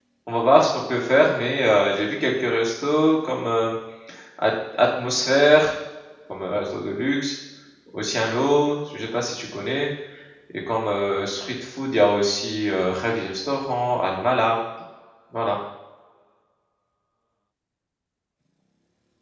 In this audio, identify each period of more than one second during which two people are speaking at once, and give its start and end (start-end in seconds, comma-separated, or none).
none